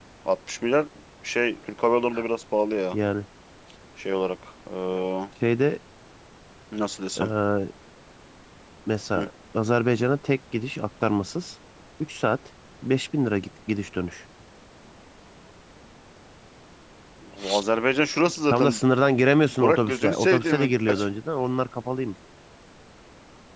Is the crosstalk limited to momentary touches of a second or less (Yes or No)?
No